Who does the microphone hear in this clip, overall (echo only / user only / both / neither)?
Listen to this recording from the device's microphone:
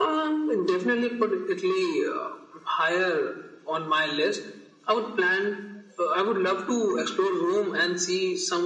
echo only